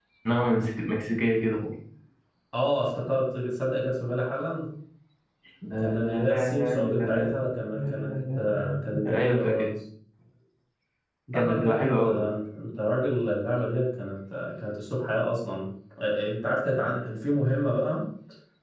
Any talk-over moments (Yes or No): Yes